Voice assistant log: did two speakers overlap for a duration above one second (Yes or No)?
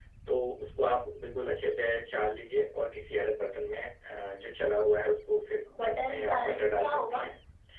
Yes